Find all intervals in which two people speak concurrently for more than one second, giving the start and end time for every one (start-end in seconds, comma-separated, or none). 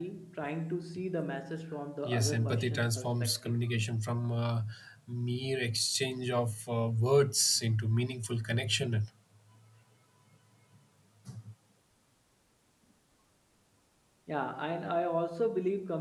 2.0-3.5